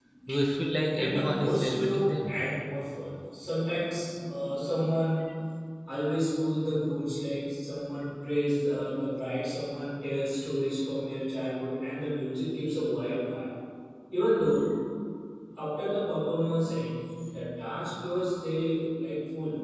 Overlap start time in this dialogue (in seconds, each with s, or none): 0.9 s